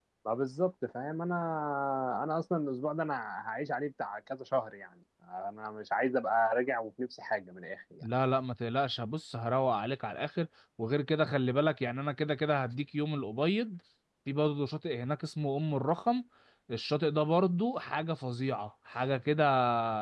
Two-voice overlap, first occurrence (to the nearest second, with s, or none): none